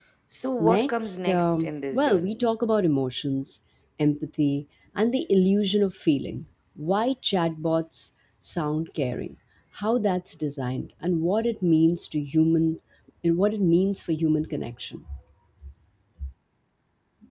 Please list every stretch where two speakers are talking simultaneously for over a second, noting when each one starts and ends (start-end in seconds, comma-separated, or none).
0.6-2.4